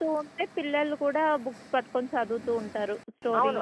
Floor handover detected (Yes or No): Yes